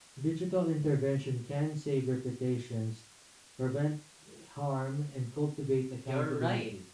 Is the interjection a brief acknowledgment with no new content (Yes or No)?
No